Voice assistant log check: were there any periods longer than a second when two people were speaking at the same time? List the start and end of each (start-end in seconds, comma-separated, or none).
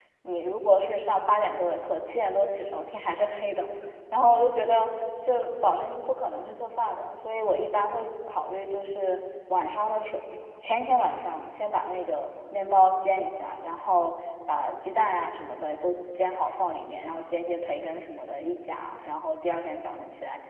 none